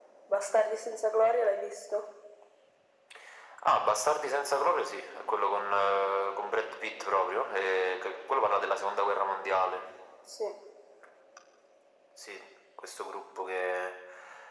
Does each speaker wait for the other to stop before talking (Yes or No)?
Yes